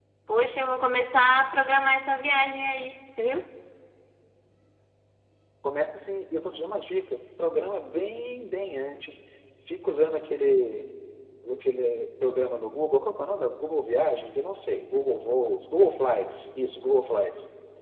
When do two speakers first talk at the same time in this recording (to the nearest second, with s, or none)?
none